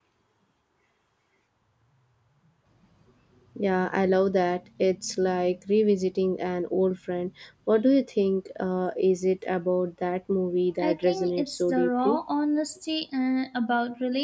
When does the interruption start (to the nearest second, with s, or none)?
11 s